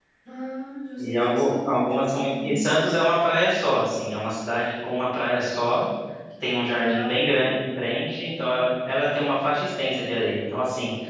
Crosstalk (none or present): present